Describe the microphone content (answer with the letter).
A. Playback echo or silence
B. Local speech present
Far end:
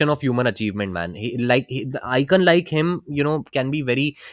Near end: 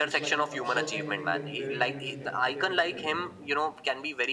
B